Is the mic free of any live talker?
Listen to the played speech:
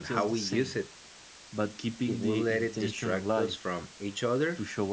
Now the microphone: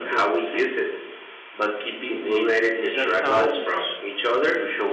No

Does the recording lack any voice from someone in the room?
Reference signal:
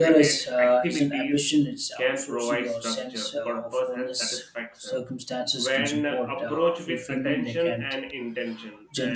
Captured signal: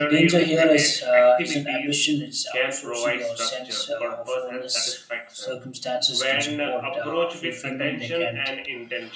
Yes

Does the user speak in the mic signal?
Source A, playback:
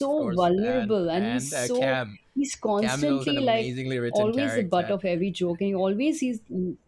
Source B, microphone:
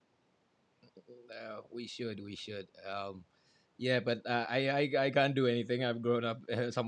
Yes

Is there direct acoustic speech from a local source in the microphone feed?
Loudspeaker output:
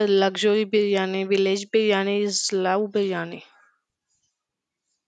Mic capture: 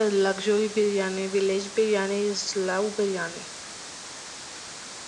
No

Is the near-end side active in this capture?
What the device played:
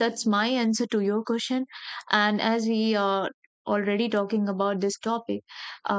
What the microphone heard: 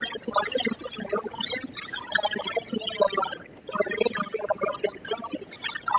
No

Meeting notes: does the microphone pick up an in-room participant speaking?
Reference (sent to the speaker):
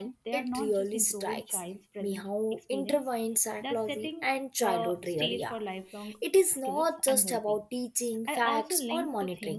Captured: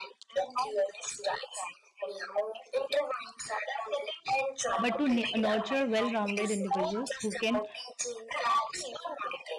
Yes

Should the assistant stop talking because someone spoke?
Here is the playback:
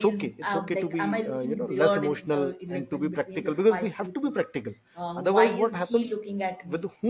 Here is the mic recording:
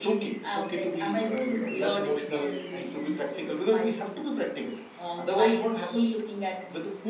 No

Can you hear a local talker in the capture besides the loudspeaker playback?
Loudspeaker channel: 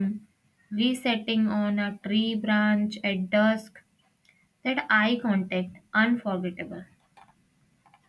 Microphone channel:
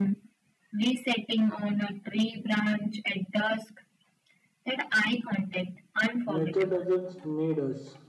Yes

